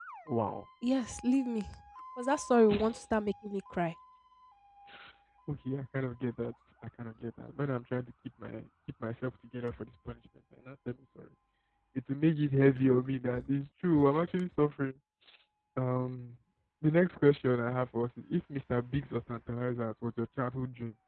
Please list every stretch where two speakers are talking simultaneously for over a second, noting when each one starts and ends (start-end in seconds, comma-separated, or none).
none